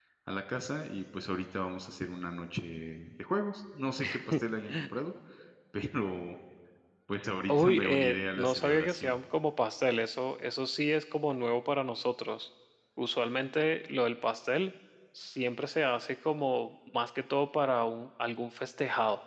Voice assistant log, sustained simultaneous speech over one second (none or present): present